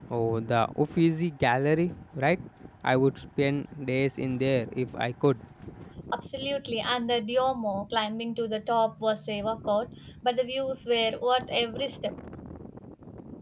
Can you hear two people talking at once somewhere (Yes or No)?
No